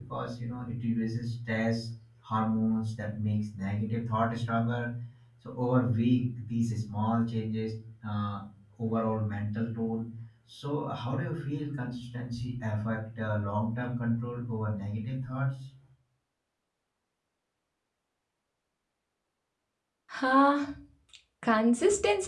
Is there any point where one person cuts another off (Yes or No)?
No